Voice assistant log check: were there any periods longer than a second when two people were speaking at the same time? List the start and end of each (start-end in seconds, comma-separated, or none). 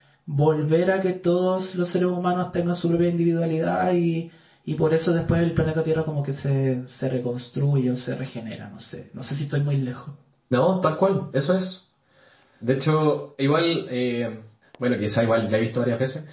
none